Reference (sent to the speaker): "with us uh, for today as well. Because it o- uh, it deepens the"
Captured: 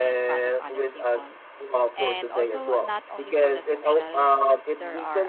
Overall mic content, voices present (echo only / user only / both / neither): both